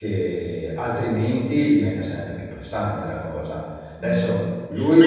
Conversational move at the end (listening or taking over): taking over